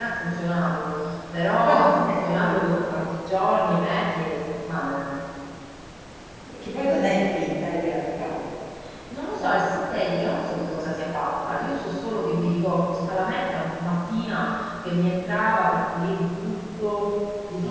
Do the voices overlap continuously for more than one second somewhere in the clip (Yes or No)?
Yes